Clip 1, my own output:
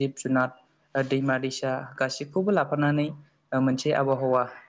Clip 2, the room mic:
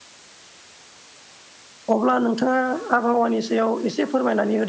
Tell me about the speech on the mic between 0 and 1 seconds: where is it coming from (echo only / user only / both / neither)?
neither